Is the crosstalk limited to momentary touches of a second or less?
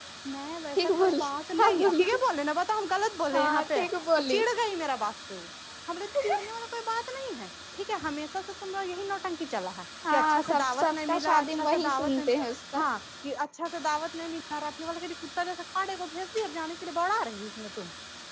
No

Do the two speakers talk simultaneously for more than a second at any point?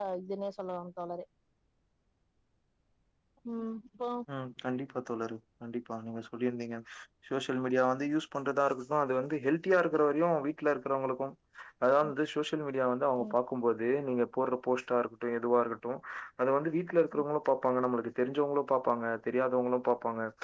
No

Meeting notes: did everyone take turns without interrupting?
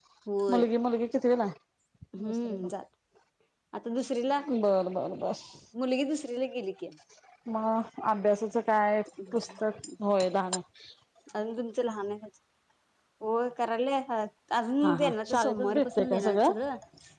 No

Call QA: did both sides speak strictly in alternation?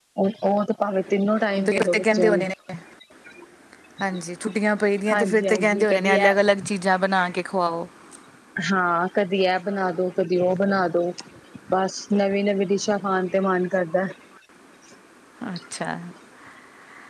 No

